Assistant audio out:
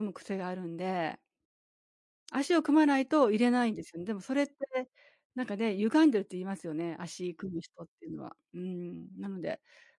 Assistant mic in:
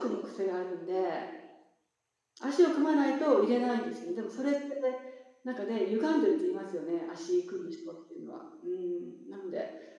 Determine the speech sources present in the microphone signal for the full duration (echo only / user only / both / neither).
echo only